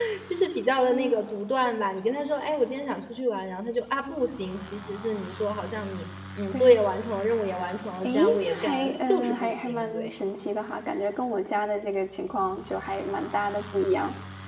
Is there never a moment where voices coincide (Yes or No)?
No